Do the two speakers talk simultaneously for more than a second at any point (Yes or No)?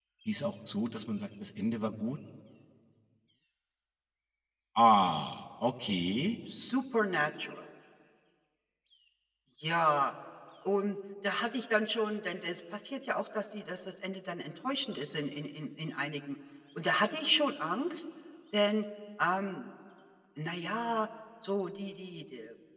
No